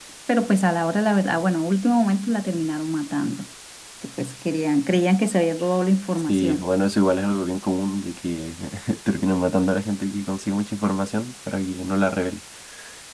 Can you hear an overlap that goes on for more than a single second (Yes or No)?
No